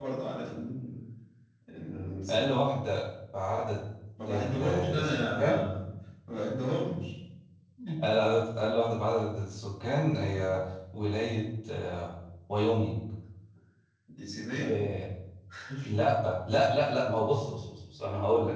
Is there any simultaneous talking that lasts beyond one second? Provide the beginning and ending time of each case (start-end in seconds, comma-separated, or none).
4.3-5.5